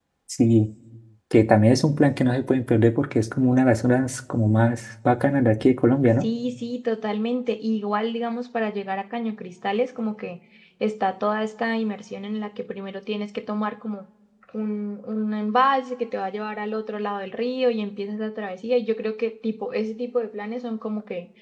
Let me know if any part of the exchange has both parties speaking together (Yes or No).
No